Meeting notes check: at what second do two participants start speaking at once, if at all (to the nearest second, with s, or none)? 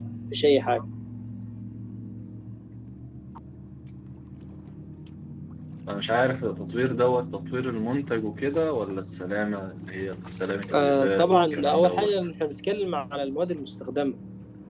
11 s